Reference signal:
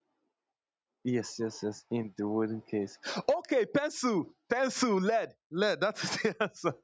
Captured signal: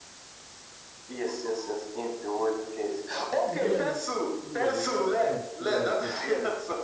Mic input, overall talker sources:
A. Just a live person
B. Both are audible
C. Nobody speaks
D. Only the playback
B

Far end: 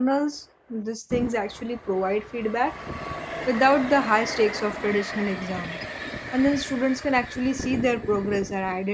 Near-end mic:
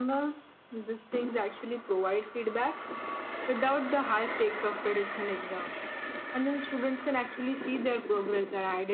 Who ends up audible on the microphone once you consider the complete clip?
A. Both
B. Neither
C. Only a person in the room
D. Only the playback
D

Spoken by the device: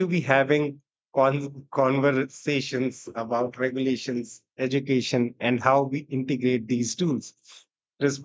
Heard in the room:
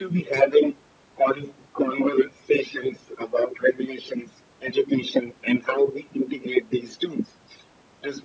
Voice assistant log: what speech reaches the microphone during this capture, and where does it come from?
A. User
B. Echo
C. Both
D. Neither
B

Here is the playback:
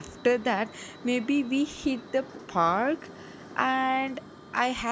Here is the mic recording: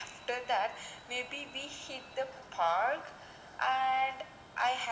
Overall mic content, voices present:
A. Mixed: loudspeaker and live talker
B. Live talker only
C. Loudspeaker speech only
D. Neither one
C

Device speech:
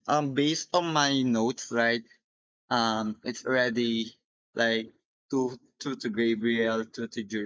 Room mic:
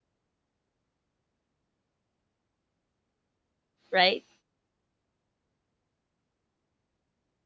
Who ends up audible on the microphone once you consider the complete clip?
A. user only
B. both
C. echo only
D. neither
A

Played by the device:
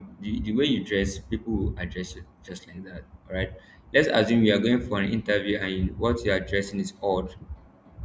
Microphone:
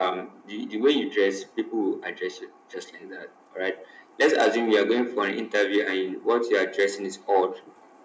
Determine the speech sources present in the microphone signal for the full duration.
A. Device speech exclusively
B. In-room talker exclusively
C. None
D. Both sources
A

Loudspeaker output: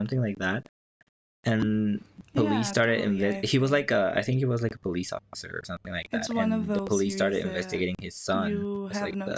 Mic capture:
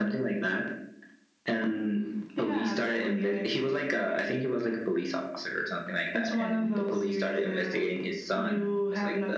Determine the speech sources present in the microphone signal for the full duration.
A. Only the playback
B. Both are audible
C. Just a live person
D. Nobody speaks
A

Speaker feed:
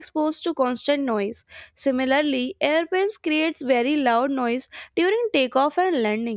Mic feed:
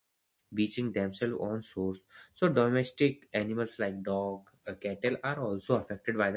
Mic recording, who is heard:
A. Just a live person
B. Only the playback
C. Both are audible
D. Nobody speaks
A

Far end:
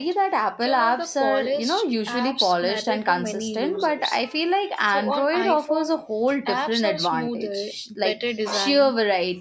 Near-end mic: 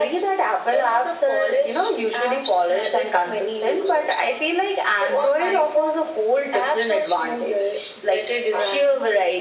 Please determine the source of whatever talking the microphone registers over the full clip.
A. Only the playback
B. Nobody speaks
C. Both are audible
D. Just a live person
A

